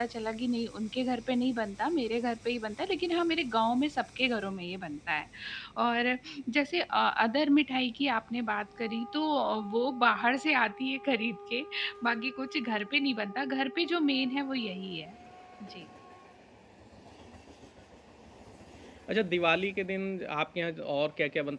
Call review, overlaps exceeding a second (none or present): none